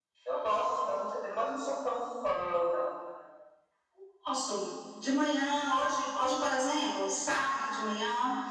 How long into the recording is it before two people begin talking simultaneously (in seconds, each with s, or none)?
none